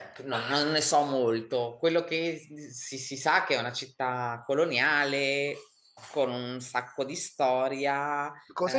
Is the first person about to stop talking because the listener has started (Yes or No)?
Yes